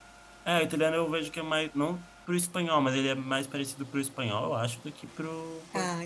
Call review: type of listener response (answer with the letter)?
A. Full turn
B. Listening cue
B